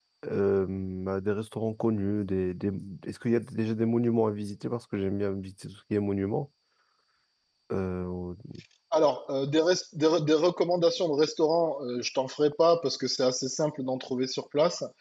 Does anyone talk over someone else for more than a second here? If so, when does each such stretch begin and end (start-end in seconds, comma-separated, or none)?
none